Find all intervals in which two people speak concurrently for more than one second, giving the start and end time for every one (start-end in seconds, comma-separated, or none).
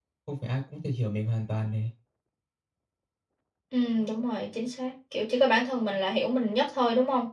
none